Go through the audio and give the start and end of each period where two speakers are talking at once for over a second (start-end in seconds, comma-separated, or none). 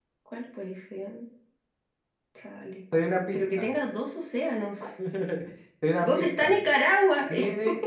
none